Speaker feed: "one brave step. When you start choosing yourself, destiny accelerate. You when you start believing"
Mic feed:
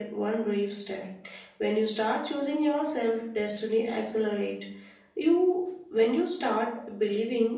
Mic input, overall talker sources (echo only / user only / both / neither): echo only